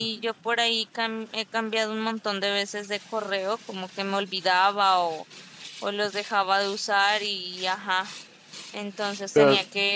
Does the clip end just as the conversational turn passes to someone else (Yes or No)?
No